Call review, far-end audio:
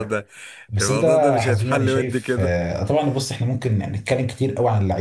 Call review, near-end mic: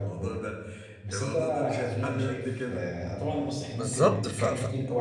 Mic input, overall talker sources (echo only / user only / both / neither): both